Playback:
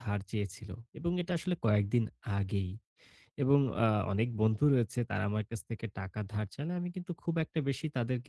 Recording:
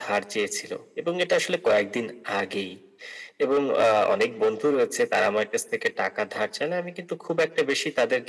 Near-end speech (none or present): none